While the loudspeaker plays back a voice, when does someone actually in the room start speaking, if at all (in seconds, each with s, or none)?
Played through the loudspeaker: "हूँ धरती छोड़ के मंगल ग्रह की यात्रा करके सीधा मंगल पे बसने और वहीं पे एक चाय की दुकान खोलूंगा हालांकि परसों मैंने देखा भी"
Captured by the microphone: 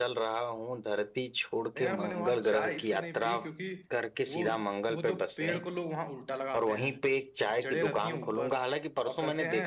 1.8 s